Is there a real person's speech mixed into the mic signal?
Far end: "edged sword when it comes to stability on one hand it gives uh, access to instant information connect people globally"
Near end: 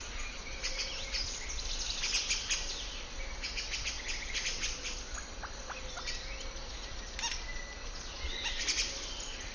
No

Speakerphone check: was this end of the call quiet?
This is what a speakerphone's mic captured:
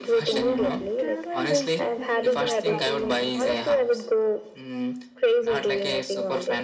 No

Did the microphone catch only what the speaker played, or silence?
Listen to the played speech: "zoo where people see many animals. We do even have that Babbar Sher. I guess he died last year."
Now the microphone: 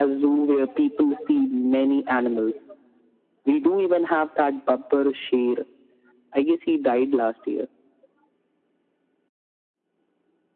Yes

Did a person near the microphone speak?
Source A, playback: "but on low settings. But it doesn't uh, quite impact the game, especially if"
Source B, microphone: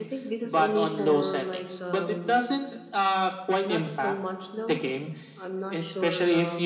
Yes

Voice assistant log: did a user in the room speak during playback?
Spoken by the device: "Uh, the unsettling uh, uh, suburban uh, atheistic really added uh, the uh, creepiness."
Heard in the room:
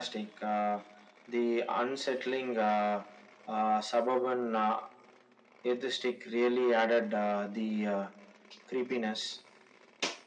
No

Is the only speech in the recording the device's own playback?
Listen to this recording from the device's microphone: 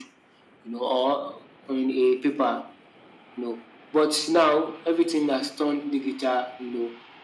Yes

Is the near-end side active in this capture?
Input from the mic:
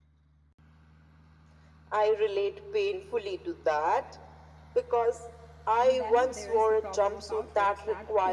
Yes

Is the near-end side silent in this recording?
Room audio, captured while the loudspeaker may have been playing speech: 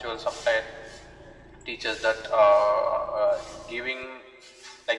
Yes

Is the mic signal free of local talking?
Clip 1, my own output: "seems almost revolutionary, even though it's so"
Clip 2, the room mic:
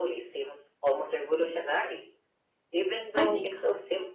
No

